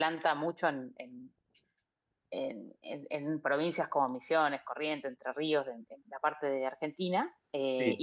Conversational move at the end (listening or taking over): listening